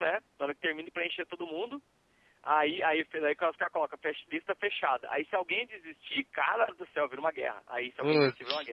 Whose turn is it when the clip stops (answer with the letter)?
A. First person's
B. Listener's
A